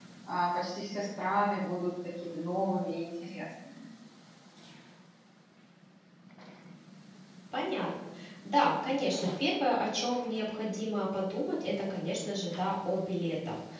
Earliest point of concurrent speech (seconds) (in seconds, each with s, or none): none